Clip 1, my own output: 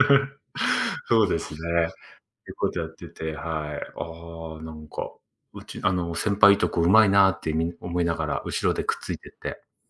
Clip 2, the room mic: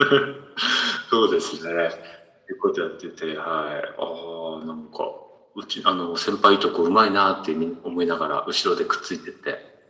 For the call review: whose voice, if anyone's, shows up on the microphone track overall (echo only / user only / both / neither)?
echo only